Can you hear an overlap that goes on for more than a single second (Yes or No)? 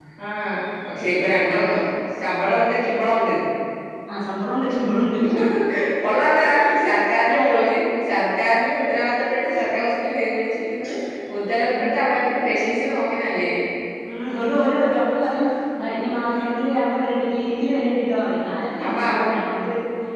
No